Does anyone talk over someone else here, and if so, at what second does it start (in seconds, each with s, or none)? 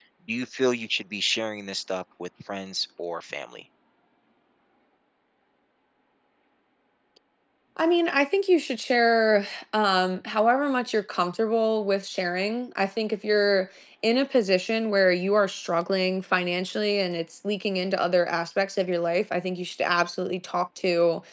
none